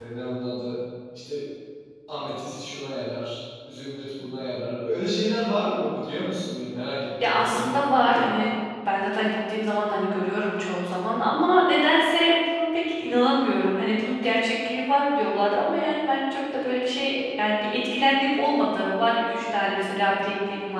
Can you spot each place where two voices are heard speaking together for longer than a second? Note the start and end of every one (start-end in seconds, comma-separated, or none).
7.2-8.4